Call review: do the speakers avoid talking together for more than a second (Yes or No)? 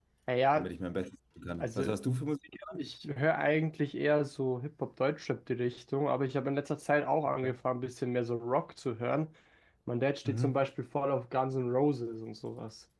Yes